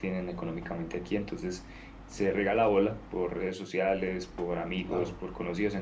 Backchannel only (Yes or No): Yes